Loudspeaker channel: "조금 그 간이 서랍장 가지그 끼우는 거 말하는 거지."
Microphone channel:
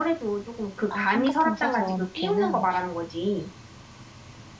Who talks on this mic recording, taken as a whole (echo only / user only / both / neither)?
both